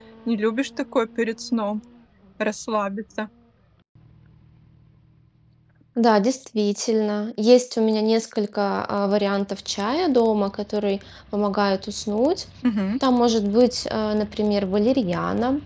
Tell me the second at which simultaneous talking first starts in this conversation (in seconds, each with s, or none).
none